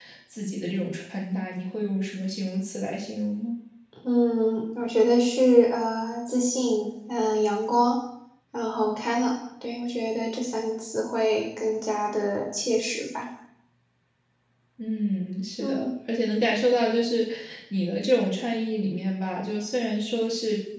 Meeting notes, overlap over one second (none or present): none